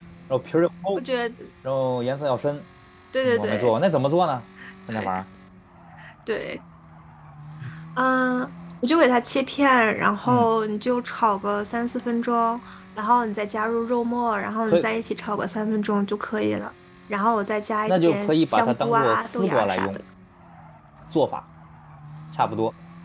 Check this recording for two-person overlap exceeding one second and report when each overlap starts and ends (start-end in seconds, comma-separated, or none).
17.9-19.9